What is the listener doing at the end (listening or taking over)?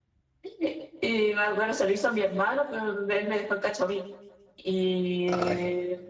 listening